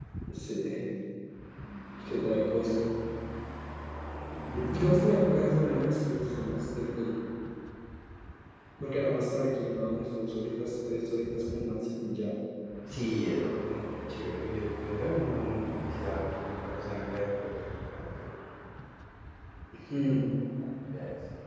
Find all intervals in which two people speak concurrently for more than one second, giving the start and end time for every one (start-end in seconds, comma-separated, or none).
none